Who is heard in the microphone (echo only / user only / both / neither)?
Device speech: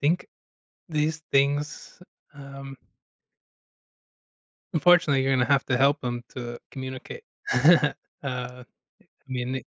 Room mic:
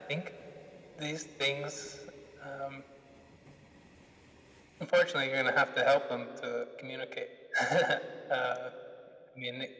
echo only